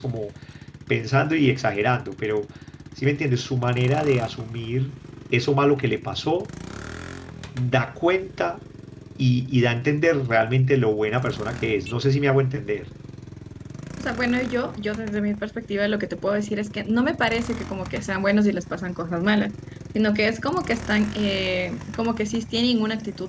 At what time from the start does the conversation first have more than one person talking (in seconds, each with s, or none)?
none